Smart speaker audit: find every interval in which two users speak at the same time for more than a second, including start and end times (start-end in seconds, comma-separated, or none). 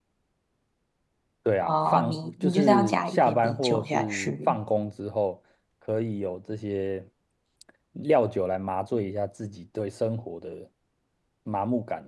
1.6-4.6